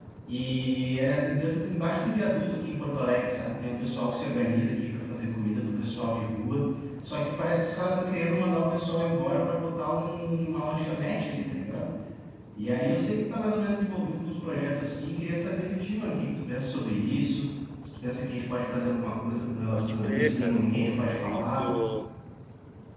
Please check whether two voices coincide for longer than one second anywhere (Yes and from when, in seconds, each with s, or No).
Yes, from 19.7 s